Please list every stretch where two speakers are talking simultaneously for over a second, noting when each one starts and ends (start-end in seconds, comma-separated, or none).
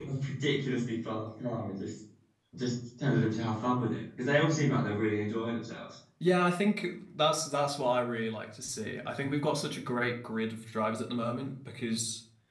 none